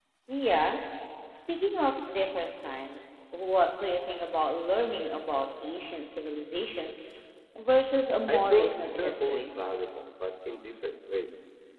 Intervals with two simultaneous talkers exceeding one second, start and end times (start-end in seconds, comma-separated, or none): 8.3-9.5